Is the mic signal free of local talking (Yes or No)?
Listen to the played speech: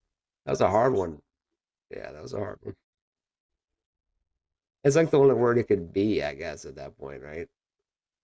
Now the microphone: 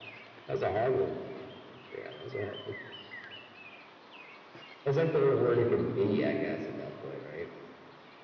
Yes